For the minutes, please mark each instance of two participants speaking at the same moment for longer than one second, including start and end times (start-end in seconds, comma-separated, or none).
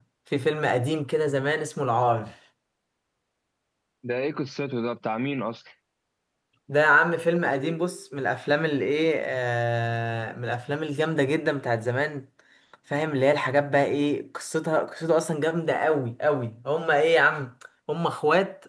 none